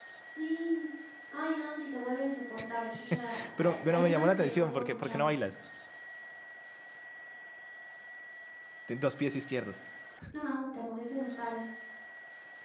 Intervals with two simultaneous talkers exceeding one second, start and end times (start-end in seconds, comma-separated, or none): 3.6-5.4